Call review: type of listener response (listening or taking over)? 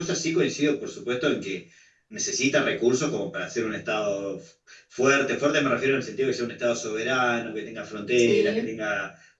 listening